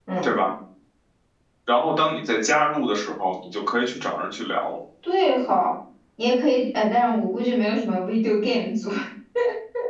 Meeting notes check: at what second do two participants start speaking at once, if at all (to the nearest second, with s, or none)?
none